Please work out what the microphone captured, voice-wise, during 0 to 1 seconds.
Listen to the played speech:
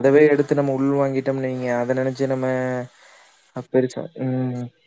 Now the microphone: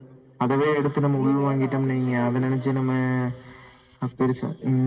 echo only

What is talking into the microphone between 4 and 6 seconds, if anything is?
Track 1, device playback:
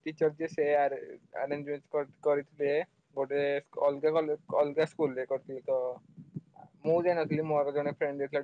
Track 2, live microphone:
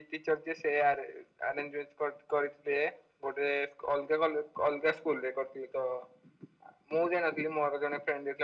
echo only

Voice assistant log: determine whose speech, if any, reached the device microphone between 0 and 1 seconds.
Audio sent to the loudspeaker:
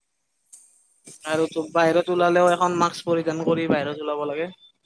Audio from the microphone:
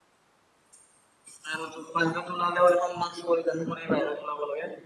neither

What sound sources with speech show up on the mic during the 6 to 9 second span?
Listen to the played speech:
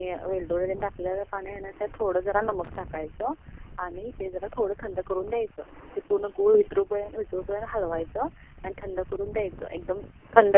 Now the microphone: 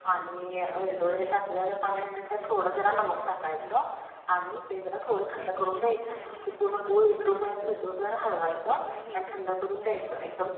both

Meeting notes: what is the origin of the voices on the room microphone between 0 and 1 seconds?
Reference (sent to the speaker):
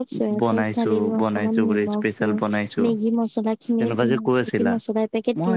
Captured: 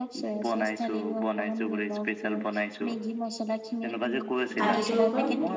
echo only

